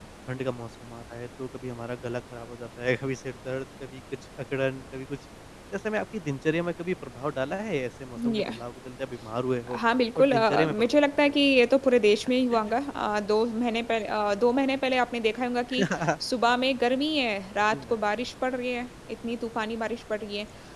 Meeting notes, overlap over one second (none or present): present